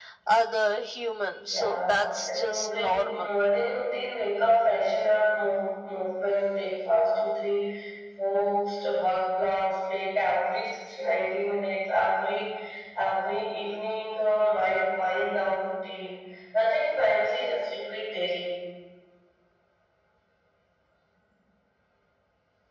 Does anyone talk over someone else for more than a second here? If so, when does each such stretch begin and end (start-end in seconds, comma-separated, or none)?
1.4-3.3